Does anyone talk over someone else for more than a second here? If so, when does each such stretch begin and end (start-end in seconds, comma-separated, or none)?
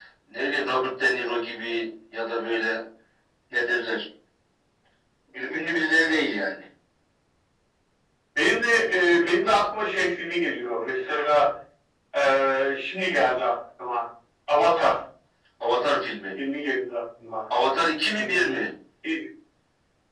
none